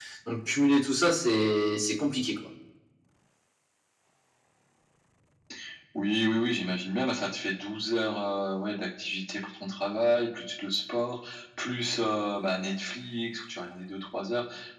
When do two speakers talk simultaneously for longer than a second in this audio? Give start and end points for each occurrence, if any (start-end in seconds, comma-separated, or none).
none